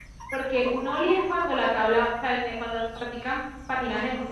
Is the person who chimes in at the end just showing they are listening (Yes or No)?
Yes